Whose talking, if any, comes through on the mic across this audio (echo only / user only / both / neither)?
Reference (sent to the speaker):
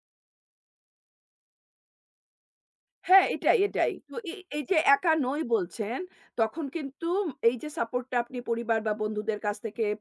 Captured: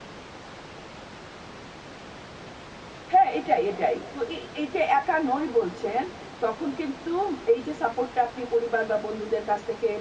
echo only